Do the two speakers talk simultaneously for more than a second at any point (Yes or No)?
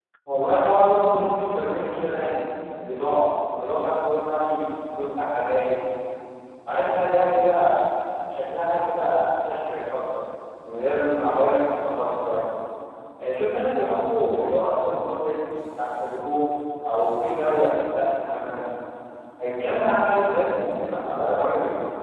No